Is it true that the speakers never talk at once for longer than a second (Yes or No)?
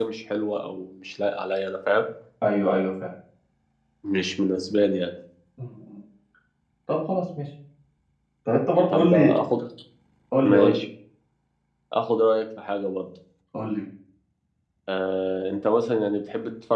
Yes